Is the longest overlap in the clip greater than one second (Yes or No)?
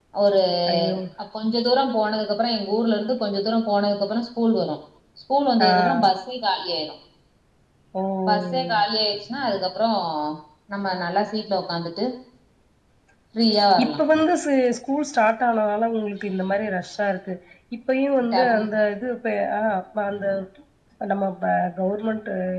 No